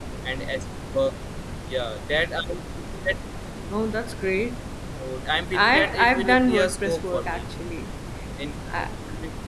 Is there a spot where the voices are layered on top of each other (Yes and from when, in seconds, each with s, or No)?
Yes, from 5.5 s